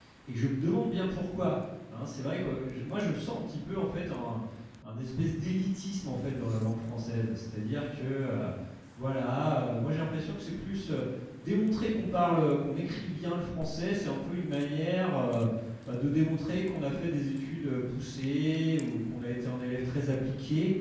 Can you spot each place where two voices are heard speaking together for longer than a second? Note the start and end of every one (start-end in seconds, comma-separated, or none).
none